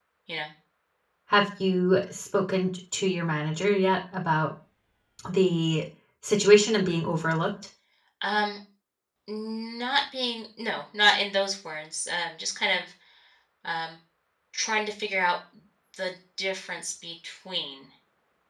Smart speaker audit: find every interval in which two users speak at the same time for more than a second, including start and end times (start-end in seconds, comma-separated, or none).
none